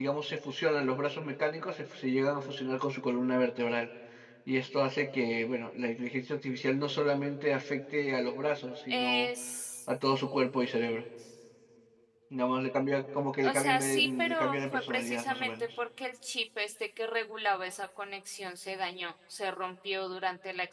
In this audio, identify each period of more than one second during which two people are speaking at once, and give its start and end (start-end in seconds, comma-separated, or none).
13.4-15.7